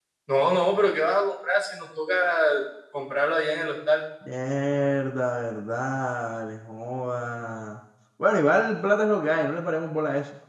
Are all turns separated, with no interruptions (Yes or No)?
Yes